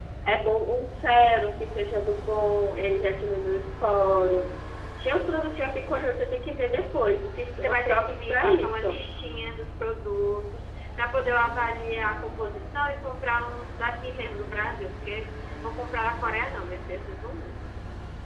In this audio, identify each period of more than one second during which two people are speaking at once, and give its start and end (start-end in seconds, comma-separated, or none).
7.6-9.0